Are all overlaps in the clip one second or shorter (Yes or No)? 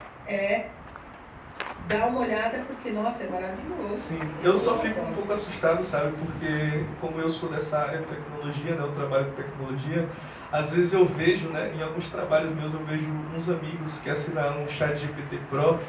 No